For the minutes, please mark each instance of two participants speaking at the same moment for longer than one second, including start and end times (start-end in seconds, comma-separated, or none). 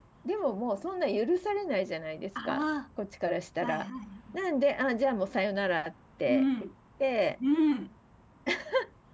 none